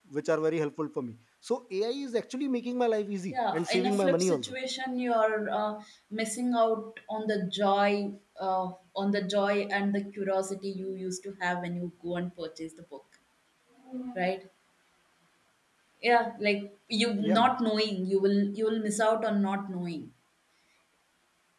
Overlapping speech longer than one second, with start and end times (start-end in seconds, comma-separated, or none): 3.3-4.5